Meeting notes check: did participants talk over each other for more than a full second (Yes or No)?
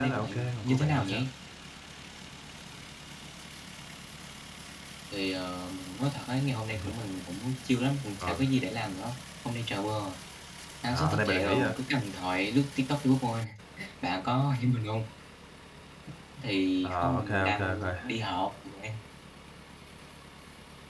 Yes